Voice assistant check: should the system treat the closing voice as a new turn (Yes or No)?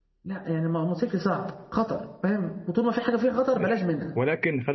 Yes